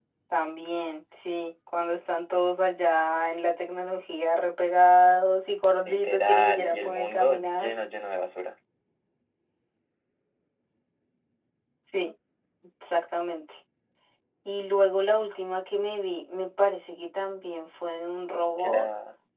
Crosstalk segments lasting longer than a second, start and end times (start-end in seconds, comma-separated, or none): 5.8-7.7